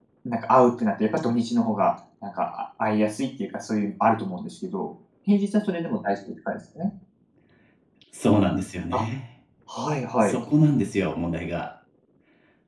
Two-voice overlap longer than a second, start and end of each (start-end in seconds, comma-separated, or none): none